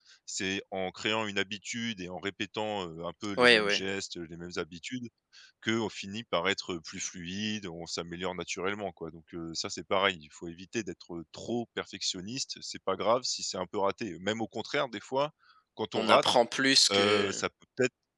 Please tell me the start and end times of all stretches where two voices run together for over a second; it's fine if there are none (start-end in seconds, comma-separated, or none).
none